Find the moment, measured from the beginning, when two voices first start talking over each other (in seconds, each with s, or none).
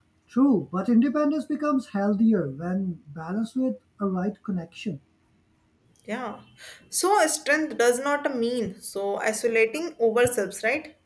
none